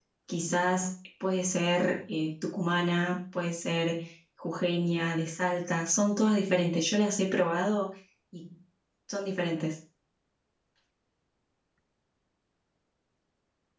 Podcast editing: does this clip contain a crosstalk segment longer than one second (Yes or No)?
No